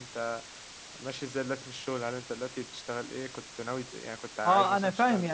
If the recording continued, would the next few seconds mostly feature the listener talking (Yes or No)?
Yes